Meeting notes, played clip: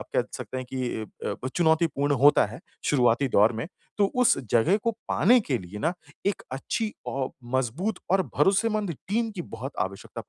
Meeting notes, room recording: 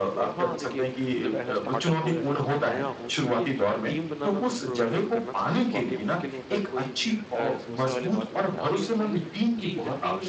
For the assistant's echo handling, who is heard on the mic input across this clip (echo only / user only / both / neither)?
both